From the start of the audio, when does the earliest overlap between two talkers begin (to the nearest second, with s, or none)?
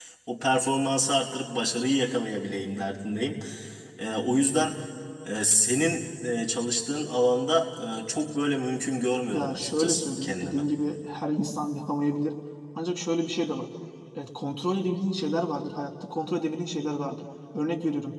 9 s